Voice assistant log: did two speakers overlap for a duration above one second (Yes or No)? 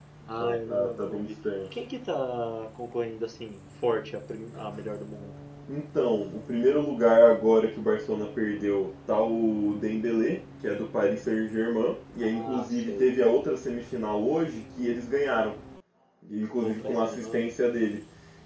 Yes